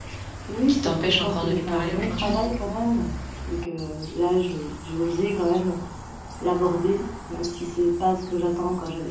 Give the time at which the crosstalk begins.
1 s

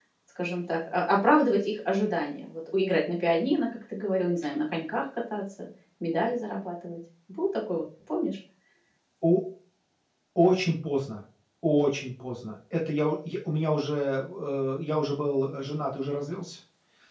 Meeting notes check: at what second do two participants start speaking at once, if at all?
none

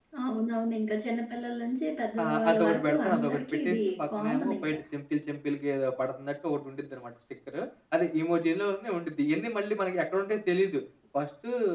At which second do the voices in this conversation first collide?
2 s

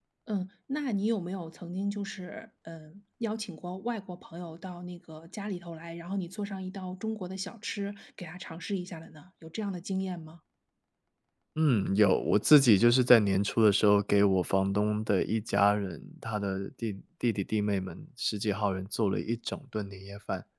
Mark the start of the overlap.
none

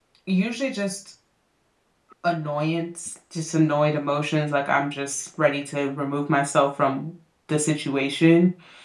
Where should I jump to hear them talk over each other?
none

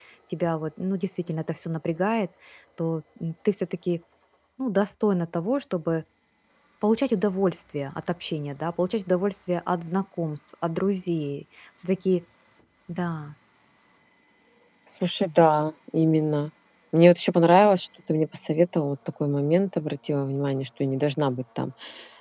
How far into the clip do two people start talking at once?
none

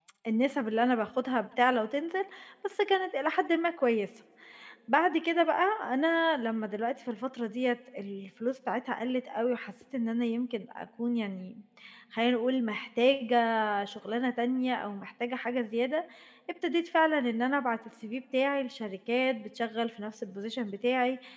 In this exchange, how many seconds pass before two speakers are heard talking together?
none

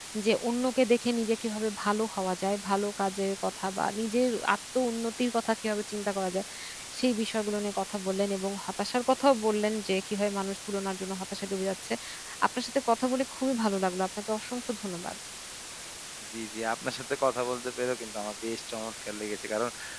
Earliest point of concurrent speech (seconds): none

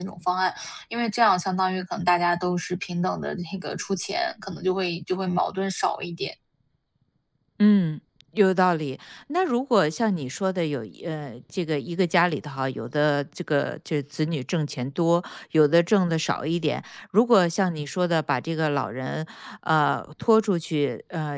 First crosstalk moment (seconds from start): none

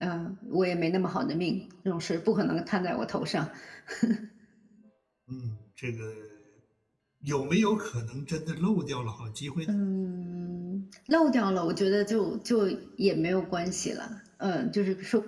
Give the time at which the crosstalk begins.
none

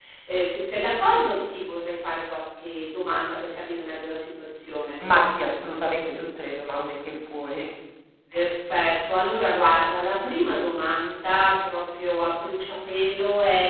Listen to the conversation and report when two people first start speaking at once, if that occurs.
none

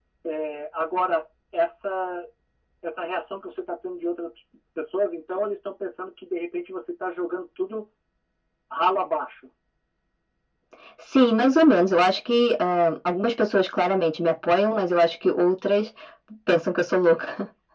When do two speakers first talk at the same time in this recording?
none

